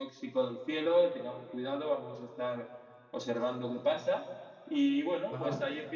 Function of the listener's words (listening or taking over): listening